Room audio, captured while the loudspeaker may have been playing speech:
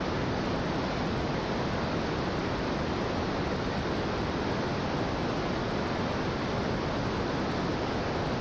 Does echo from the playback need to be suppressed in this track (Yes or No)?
No